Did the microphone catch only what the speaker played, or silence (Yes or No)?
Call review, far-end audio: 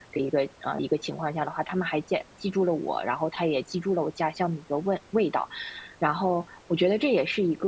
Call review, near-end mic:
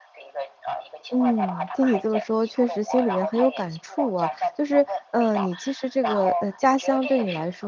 No